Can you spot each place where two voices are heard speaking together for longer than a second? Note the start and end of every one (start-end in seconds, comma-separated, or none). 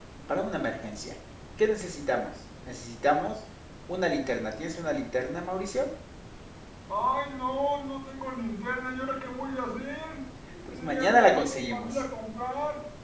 10.7-12.0